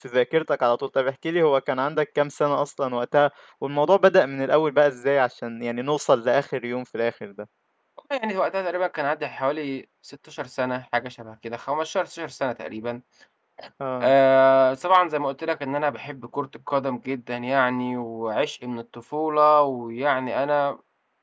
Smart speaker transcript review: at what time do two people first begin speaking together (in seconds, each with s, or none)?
none